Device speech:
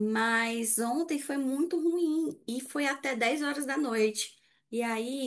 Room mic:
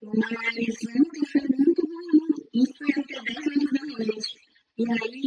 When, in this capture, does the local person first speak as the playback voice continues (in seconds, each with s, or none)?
none